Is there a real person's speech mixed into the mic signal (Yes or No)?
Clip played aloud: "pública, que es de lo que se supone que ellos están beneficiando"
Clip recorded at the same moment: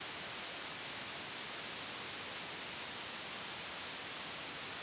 No